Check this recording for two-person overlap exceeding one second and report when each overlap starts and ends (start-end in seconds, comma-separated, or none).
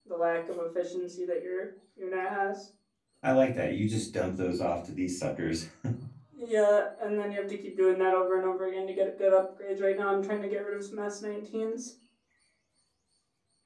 none